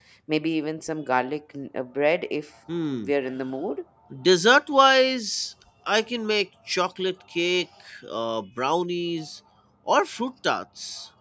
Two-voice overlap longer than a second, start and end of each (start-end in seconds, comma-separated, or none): none